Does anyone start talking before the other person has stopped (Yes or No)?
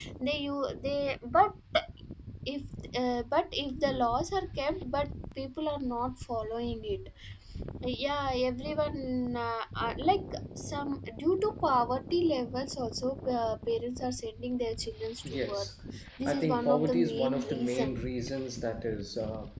Yes